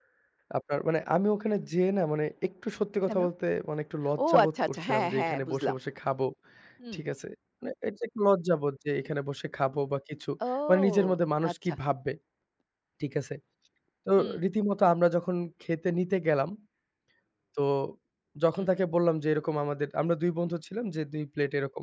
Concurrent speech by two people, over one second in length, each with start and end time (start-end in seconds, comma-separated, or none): 4.3-5.7